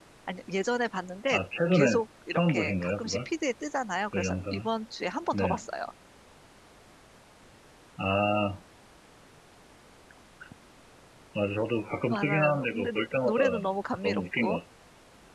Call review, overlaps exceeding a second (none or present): present